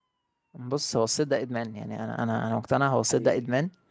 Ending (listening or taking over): listening